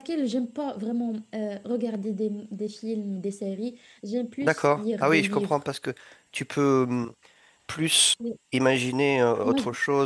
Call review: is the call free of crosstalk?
No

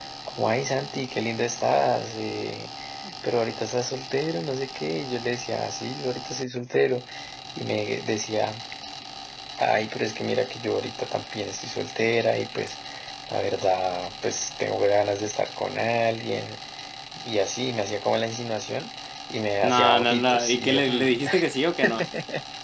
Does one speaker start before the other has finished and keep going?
Yes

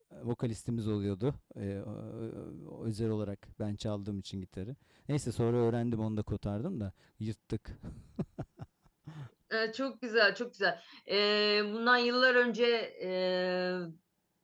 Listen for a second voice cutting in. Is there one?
No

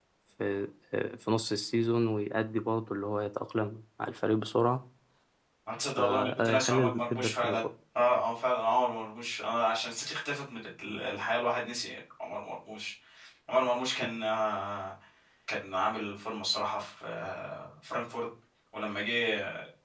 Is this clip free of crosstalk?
No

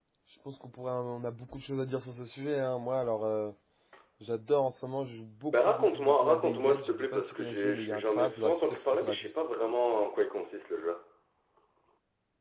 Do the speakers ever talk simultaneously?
Yes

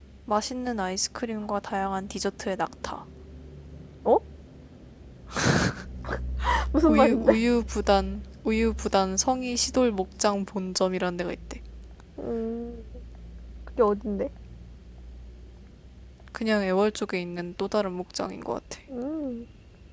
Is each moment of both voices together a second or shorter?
Yes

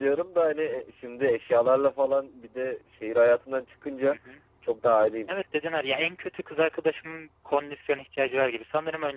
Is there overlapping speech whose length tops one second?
No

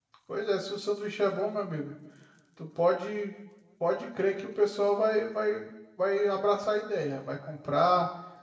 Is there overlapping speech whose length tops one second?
No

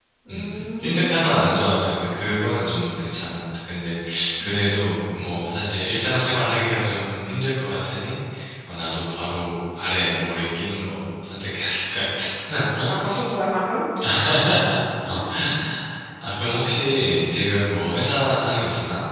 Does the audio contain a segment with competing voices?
Yes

